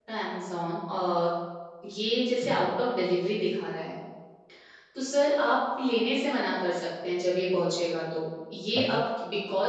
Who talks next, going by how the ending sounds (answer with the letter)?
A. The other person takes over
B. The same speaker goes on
B